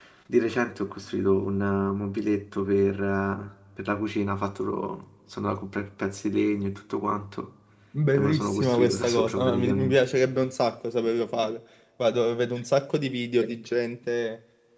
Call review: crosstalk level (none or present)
present